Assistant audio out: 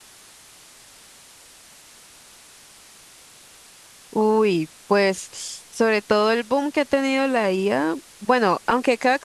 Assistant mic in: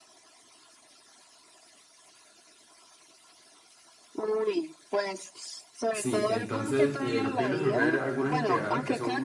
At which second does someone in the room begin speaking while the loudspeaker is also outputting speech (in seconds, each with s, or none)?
5.9 s